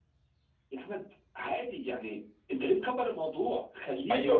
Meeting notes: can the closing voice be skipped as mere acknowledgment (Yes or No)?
No